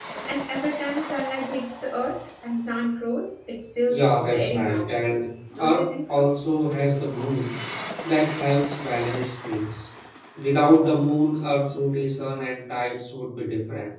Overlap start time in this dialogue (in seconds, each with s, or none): 3.9 s